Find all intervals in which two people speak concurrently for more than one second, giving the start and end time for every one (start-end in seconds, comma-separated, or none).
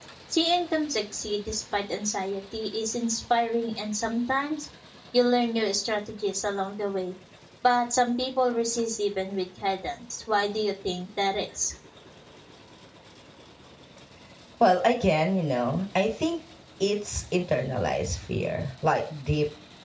none